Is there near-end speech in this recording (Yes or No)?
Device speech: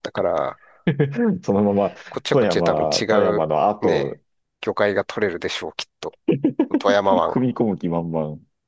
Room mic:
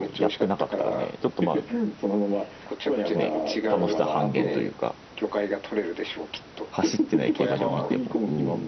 Yes